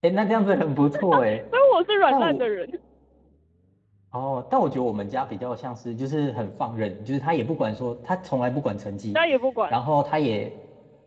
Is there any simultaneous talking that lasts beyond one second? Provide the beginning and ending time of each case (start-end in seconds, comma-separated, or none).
none